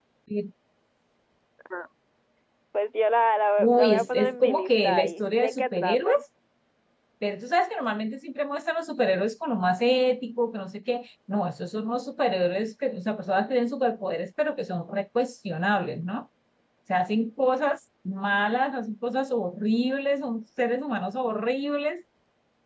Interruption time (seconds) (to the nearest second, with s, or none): 4 s